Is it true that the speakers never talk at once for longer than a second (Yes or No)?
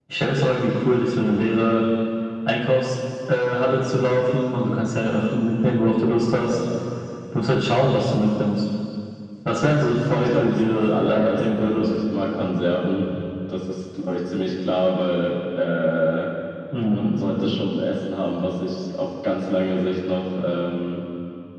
No